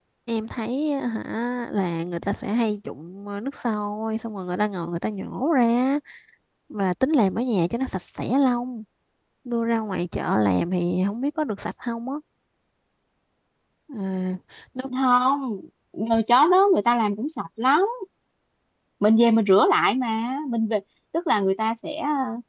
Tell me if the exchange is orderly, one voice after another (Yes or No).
Yes